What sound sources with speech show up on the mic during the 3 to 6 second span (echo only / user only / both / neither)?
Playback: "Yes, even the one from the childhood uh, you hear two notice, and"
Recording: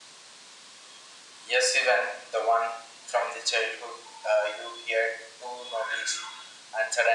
echo only